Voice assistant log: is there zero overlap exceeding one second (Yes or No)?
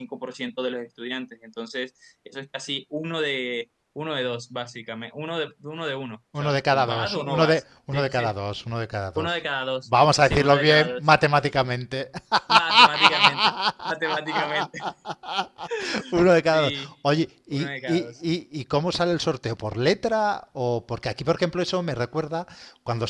No